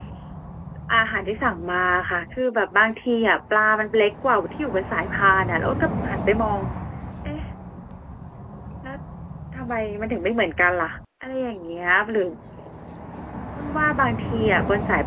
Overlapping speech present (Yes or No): No